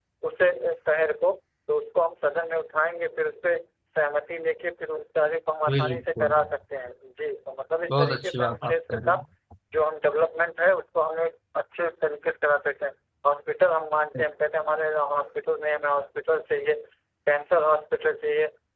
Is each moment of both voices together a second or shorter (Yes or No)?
No